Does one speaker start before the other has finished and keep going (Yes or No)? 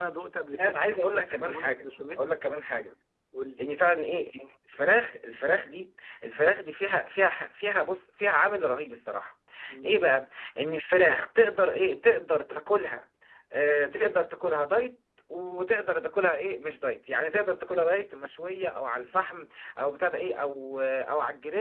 Yes